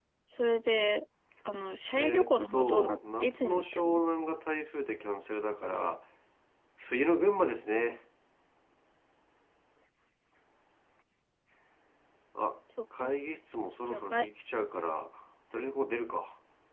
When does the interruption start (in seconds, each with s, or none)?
2.0 s